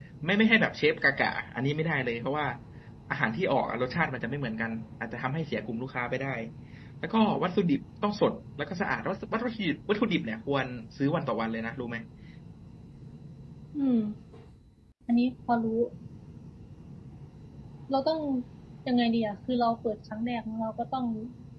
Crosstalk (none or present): none